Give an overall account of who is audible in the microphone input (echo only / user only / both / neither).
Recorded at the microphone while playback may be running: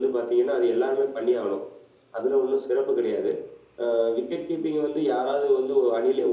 echo only